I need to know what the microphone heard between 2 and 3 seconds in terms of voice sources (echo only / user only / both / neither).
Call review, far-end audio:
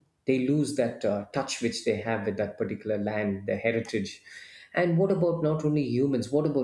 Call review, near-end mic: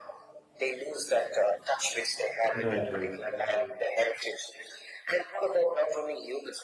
both